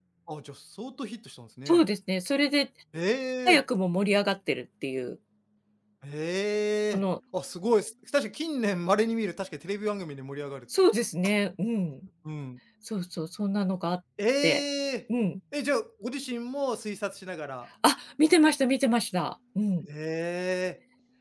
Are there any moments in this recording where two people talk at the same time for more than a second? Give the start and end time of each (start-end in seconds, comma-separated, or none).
none